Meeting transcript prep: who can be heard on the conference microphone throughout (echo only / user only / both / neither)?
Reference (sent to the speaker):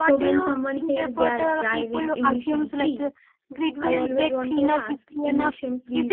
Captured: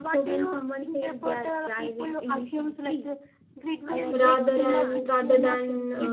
both